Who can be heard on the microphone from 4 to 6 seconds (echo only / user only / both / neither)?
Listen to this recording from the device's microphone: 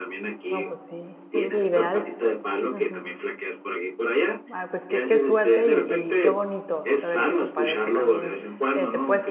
both